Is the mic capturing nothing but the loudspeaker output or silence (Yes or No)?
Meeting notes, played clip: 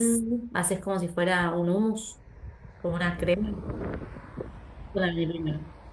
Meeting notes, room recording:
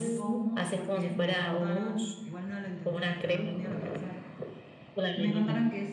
No